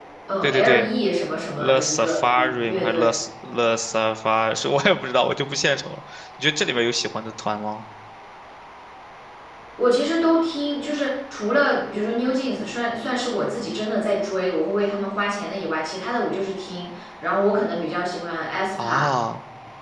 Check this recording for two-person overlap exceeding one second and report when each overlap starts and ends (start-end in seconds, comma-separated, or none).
1.6-3.1